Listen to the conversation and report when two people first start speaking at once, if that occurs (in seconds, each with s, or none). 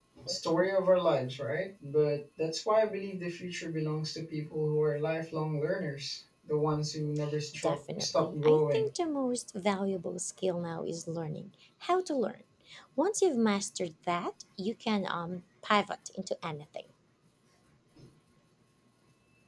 7.5 s